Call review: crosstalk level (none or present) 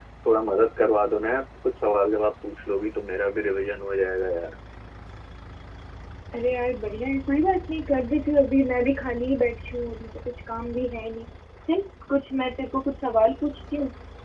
none